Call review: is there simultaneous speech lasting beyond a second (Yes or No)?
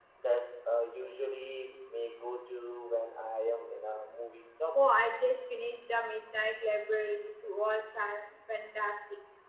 No